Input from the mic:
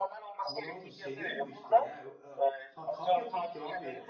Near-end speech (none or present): present